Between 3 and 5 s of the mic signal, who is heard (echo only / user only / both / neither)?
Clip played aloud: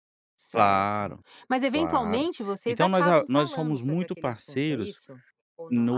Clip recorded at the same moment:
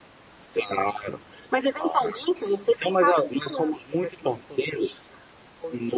echo only